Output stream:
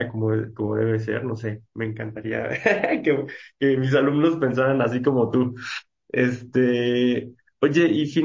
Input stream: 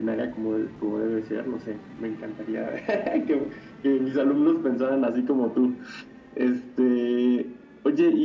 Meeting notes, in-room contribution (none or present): none